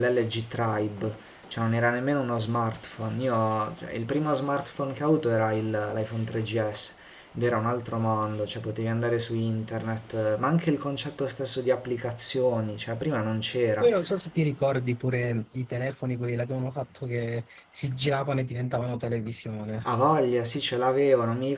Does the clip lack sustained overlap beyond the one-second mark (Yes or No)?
Yes